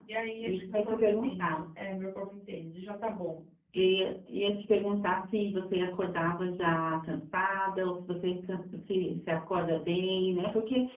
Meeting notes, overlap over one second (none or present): present